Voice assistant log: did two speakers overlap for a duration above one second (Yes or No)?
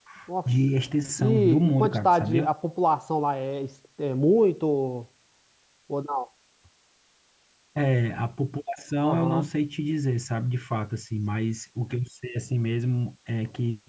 Yes